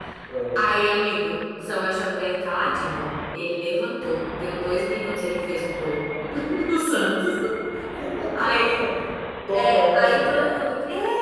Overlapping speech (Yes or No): Yes